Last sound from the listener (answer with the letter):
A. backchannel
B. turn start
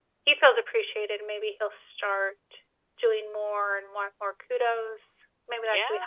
B